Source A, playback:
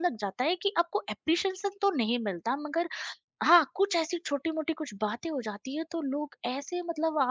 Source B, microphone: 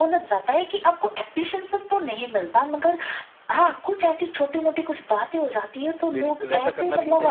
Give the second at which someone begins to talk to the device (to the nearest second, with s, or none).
6 s